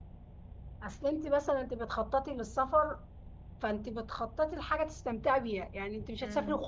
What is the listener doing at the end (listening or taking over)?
listening